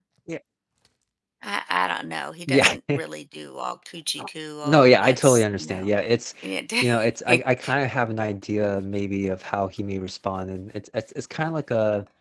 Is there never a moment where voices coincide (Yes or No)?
No